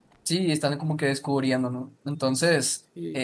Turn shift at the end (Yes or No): No